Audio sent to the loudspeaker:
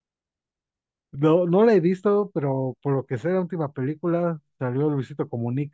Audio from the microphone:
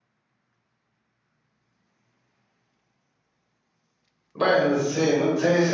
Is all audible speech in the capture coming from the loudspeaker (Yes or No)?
No